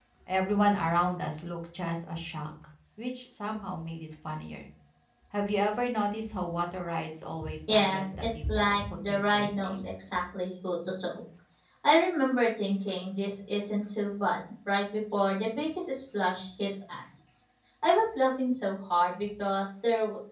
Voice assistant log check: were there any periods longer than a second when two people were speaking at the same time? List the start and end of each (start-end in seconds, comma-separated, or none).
7.7-9.9